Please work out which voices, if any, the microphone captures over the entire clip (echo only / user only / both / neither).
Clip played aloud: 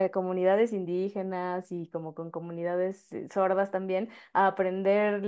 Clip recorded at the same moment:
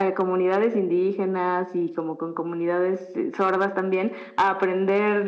echo only